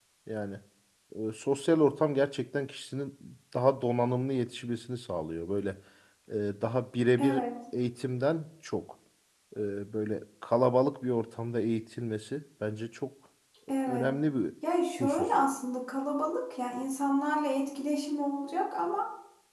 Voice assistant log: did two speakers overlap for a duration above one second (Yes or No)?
No